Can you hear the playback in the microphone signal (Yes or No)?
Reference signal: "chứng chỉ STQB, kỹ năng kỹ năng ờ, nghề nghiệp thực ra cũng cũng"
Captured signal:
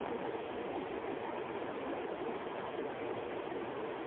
No